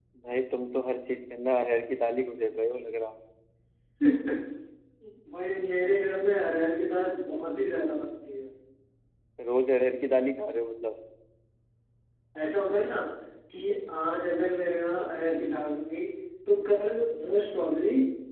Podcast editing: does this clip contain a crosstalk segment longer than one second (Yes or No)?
No